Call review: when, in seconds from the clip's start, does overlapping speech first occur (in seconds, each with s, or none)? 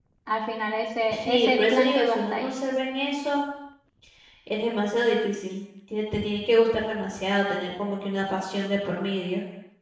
1.1 s